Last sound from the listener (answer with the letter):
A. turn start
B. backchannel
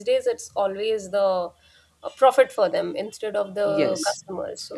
B